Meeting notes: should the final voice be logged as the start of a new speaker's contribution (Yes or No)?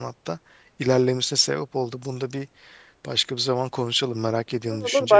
Yes